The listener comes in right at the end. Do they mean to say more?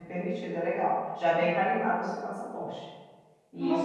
Yes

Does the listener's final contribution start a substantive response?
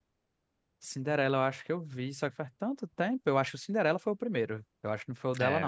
Yes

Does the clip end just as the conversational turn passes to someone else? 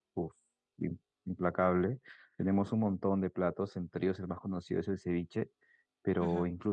No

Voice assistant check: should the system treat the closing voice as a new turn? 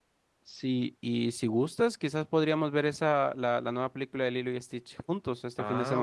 Yes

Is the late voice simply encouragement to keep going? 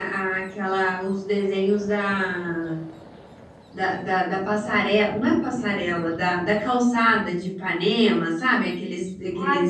No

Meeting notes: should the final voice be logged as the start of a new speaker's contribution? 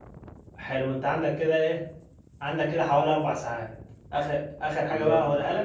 No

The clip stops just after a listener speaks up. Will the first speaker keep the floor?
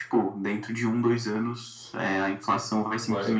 No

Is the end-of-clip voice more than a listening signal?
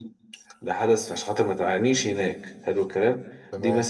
No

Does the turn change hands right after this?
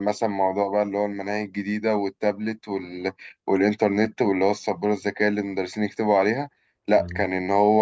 No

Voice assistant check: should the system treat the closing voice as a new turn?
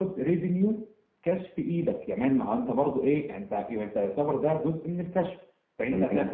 No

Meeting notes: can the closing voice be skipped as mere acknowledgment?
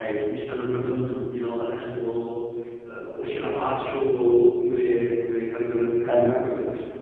Yes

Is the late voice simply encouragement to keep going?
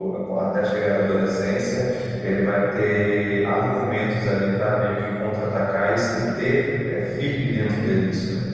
No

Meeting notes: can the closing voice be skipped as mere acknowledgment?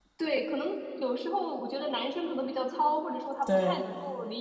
Yes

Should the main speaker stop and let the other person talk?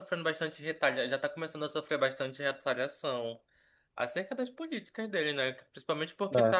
No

